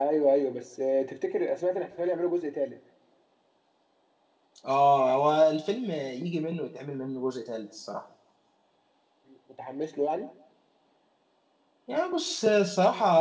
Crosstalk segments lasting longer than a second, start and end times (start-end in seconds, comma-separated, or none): none